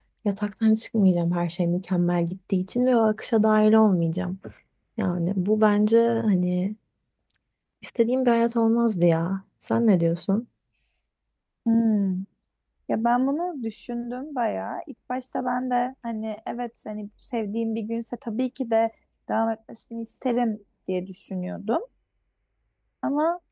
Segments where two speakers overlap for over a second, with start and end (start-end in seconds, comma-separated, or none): none